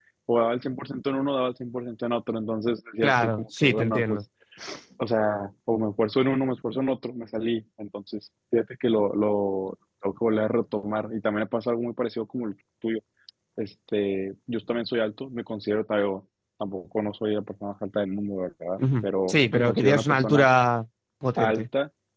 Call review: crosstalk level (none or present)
present